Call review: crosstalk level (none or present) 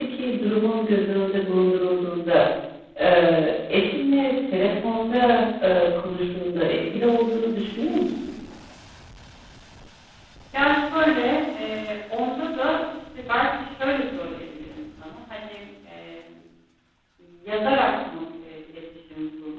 none